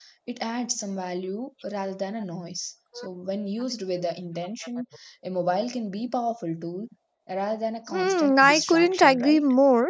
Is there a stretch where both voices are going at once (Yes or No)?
Yes